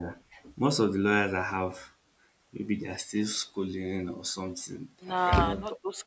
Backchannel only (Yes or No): No